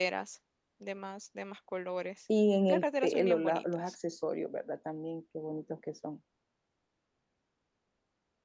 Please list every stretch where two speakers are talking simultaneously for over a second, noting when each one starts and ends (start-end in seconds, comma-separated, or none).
2.7-4.0